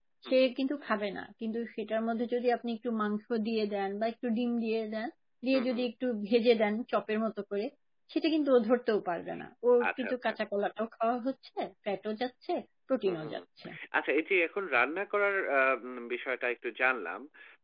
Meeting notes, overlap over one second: none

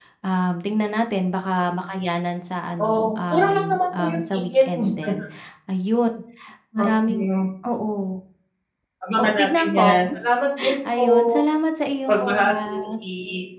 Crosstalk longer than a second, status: present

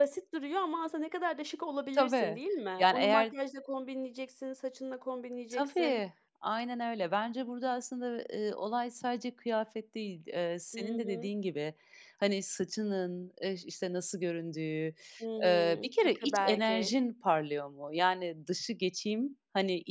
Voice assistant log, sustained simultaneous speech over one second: present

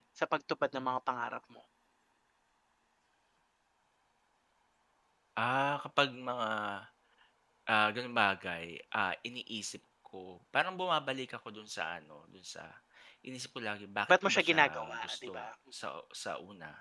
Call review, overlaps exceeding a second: present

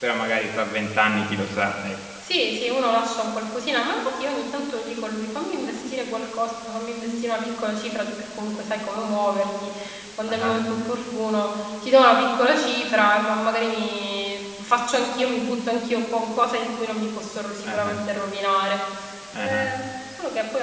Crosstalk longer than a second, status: none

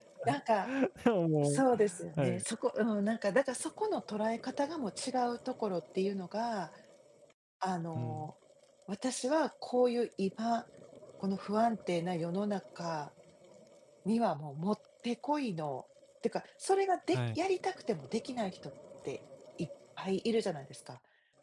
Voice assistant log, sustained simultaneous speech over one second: none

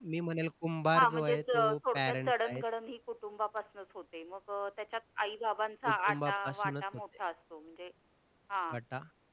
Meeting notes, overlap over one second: present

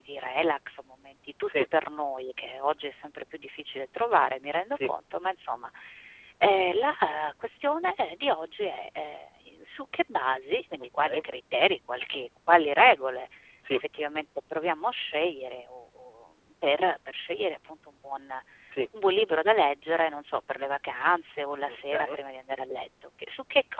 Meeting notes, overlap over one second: none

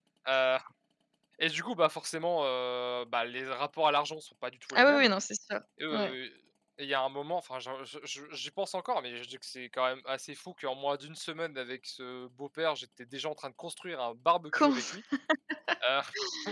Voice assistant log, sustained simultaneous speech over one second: none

